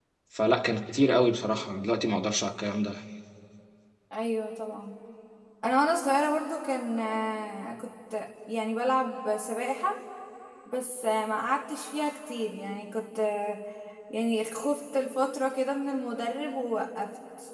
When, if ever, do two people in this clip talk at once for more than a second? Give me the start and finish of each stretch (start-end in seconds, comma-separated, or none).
none